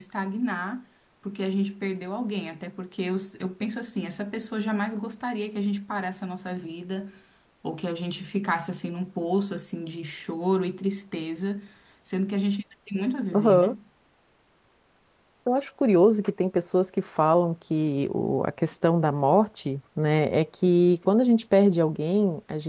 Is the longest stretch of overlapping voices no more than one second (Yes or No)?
Yes